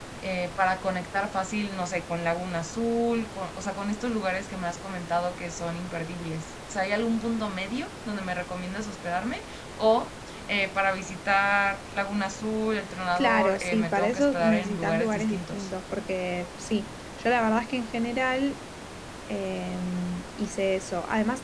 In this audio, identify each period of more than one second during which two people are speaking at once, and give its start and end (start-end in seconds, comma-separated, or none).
13.2-15.7